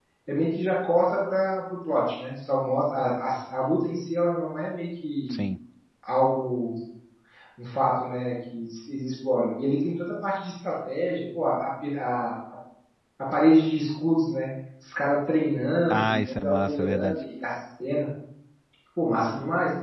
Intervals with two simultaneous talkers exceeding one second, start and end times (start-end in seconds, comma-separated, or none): 15.9-17.2